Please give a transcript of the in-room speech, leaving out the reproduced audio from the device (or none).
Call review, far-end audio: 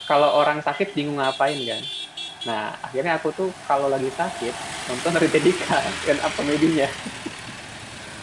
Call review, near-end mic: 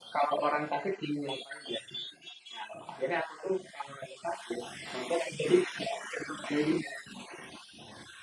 none